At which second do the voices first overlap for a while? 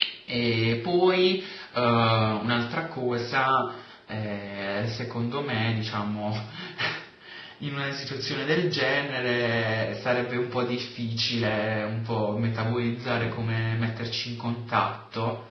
none

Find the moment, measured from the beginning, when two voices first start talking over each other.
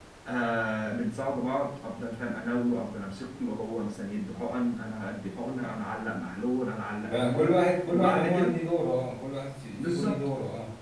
7.1 s

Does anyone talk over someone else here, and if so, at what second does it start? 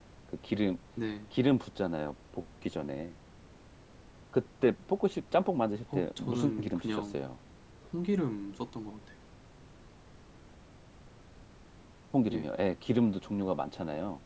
5.9 s

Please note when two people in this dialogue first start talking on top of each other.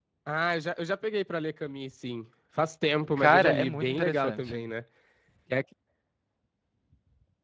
3.2 s

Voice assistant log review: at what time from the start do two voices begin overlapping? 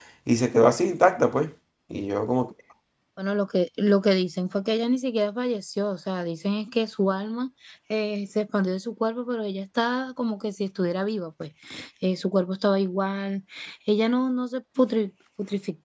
none

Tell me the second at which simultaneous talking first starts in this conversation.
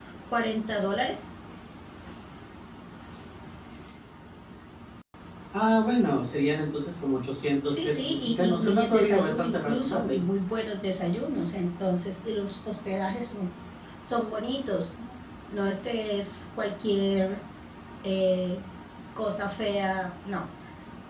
7.7 s

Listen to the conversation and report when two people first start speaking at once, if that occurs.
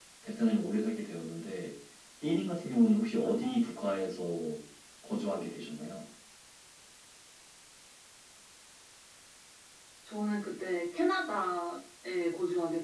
none

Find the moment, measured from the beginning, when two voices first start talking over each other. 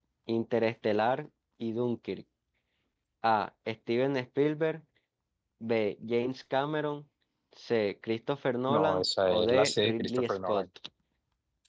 8.7 s

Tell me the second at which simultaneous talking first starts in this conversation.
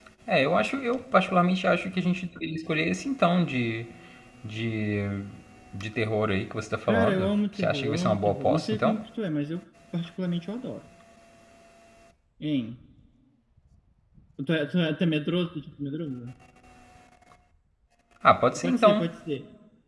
6.8 s

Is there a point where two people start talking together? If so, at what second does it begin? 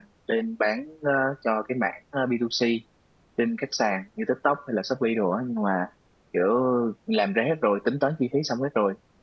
none

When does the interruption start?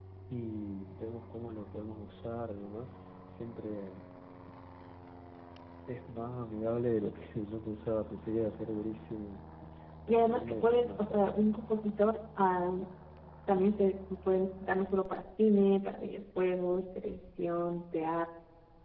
10.1 s

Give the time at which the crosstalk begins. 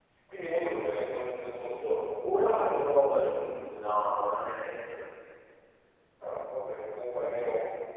none

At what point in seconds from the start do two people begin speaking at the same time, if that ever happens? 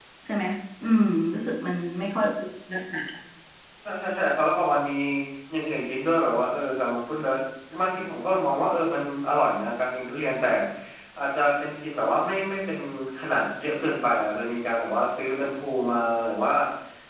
none

